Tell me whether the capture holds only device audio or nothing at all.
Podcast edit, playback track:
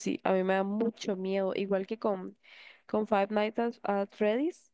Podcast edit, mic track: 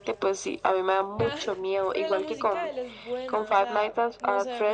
No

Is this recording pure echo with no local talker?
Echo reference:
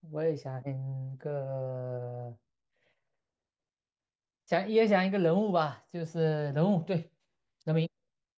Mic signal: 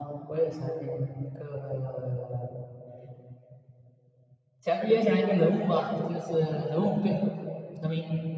Yes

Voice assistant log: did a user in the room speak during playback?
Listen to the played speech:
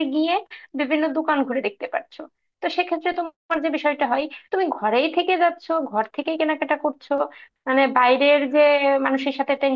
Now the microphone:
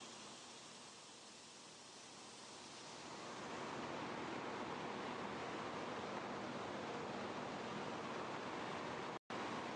No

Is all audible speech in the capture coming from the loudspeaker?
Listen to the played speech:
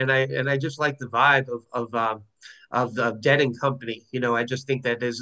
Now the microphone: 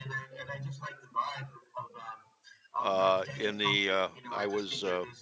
No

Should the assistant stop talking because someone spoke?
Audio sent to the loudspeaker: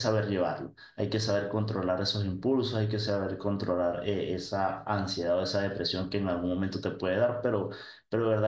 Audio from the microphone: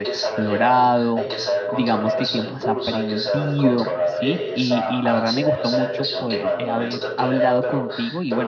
Yes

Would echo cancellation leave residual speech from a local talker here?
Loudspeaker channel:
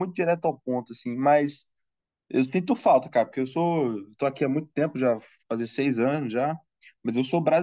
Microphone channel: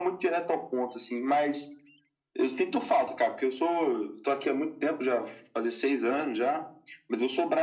No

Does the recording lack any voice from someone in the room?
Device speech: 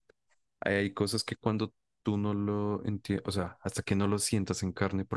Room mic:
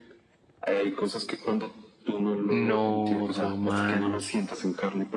No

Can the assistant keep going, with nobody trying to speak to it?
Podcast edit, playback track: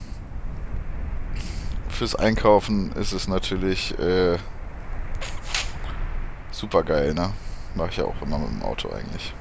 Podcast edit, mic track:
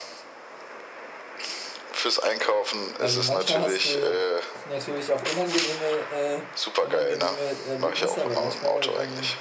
No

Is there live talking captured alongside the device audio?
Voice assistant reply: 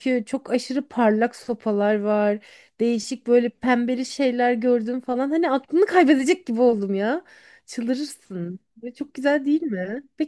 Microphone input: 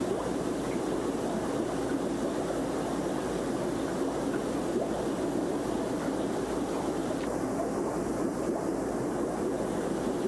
No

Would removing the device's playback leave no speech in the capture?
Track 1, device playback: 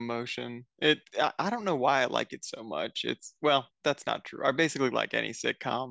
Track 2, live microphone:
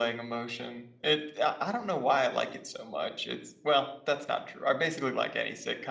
Yes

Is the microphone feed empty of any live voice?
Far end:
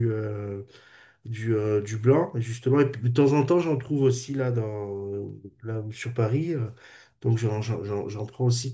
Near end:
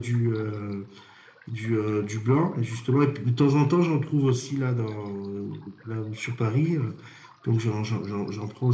Yes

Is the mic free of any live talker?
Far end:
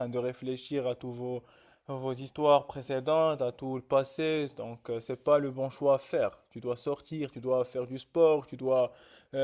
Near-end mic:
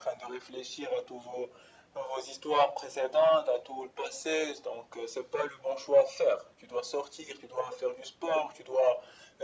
Yes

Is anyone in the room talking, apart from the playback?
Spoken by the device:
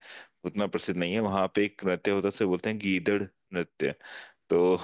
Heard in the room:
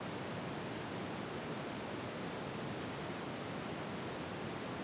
No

